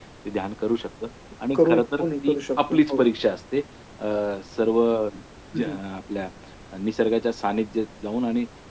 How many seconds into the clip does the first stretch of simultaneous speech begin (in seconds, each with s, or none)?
1.5 s